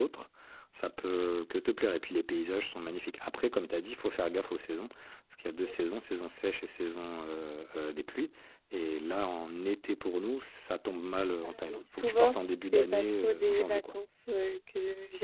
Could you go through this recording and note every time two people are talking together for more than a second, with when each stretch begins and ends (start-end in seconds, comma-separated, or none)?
11.8-13.8